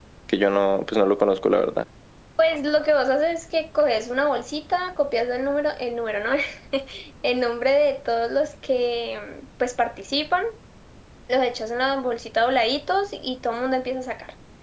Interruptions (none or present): none